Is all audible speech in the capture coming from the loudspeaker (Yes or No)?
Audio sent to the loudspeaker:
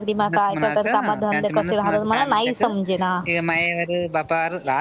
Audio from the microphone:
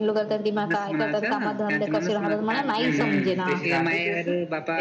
No